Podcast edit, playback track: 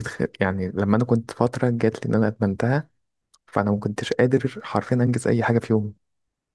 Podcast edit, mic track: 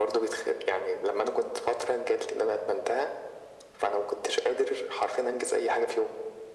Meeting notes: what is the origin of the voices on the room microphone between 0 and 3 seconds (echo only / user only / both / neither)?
echo only